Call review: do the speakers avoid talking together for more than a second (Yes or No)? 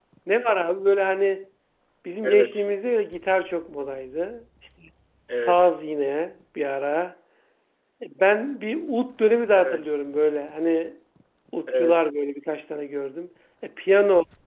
Yes